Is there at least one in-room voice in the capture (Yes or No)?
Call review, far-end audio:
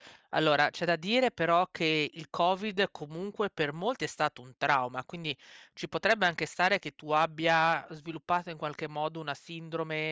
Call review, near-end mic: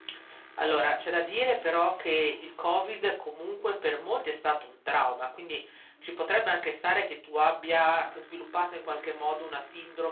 No